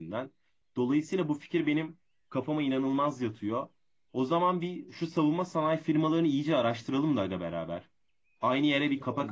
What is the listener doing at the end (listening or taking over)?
listening